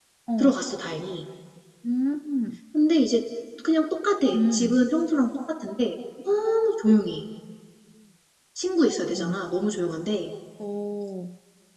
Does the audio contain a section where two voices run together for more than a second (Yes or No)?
No